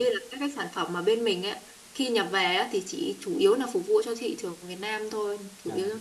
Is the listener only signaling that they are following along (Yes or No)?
No